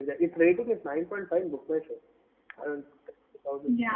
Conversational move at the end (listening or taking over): listening